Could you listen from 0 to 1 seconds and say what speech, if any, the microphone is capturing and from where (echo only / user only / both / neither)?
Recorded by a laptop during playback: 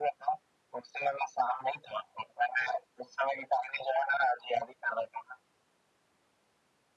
echo only